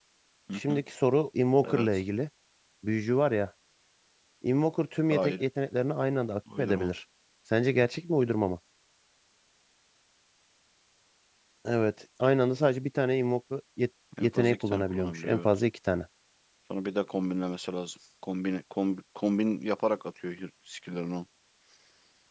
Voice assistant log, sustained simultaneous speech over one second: present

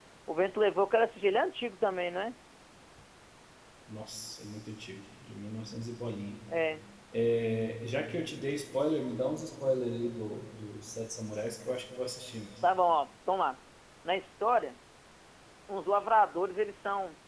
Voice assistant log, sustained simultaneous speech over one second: none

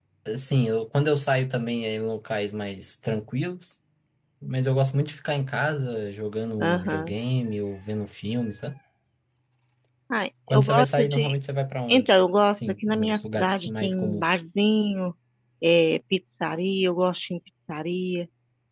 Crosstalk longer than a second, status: present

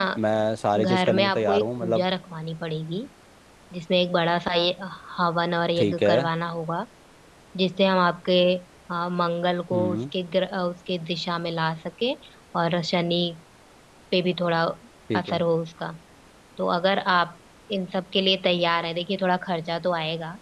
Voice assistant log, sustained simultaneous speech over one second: present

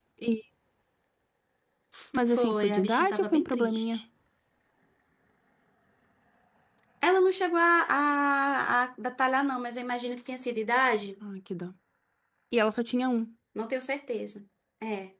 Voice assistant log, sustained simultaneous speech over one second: present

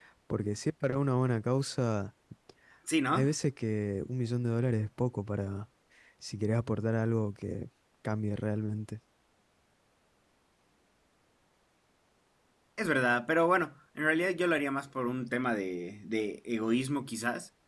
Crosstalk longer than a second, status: none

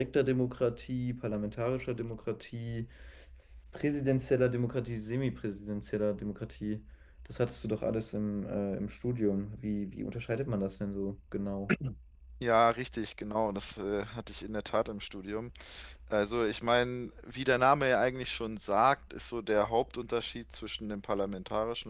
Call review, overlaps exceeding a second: none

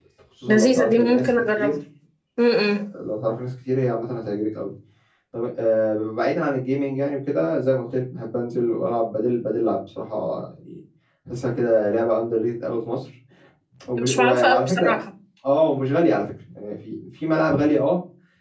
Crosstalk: present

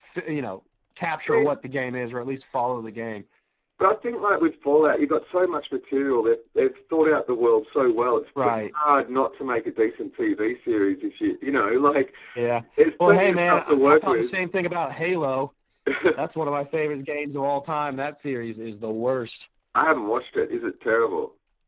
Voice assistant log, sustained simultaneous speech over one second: present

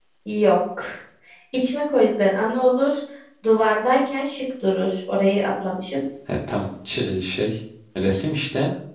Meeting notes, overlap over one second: none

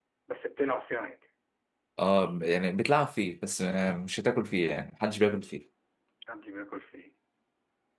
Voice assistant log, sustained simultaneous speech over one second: none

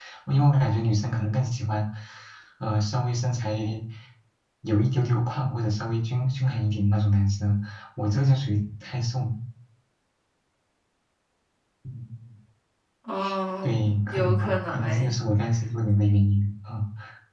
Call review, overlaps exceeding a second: present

